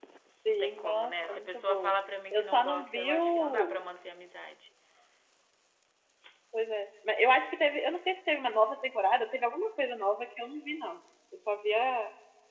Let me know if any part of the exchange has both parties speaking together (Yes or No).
Yes